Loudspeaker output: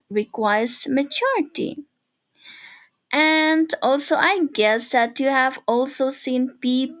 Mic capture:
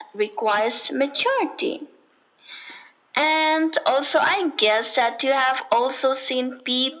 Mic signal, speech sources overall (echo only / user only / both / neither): echo only